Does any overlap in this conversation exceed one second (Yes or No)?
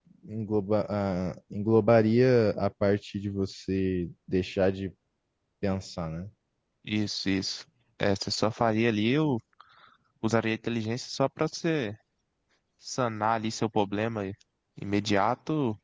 No